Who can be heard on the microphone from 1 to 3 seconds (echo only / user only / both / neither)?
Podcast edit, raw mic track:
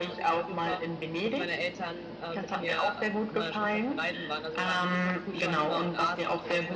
echo only